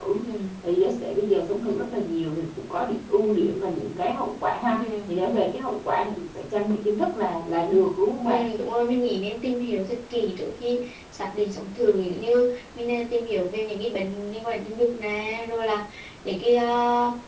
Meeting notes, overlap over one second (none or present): none